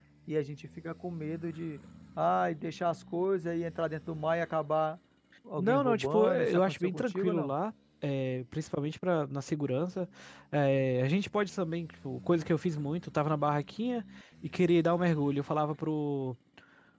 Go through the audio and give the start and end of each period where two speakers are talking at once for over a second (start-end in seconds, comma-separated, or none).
5.6-7.5